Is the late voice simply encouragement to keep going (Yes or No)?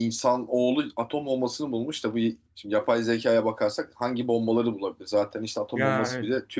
Yes